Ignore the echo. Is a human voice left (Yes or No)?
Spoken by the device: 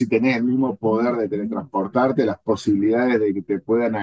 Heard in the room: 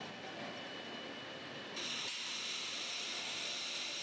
No